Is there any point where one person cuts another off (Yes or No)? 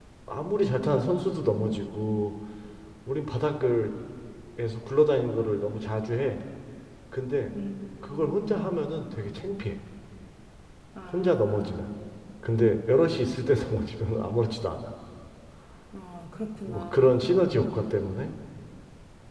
Yes